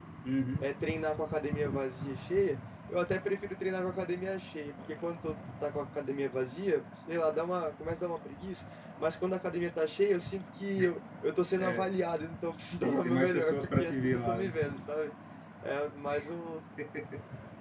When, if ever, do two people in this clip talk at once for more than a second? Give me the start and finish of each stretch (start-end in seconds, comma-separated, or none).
12.8-14.6